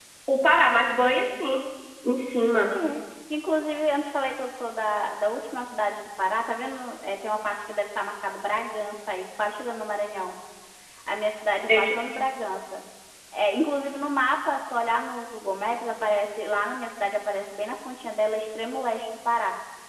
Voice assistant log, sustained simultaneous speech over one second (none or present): none